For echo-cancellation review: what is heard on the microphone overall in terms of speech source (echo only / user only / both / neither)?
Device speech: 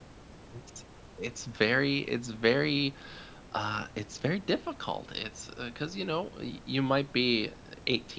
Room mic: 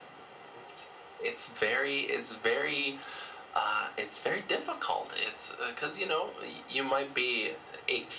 echo only